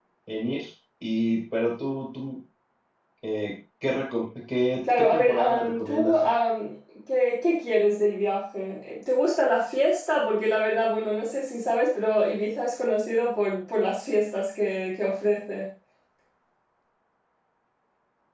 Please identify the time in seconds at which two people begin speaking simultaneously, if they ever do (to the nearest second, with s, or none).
5 s